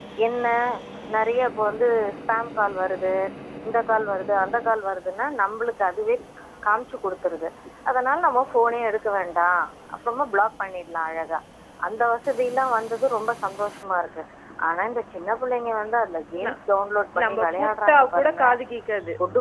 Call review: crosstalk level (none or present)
present